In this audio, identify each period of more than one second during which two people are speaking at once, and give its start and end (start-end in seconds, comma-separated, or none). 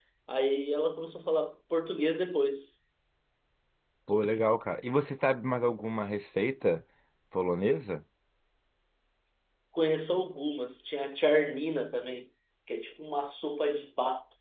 none